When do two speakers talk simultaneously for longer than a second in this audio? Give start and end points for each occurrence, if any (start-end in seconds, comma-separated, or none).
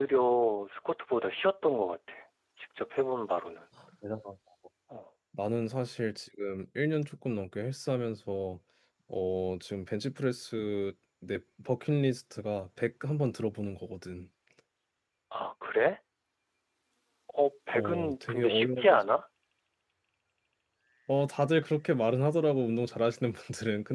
17.7-19.0